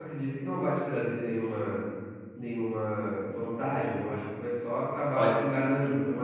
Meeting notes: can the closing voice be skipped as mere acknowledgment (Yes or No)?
Yes